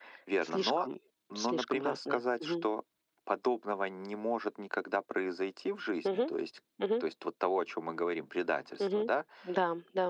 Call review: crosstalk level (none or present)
present